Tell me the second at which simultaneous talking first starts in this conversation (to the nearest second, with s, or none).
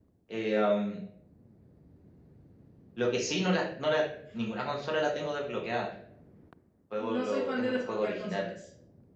7 s